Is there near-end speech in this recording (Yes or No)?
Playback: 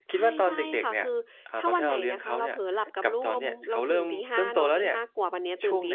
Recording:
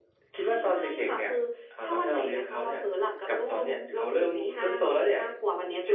No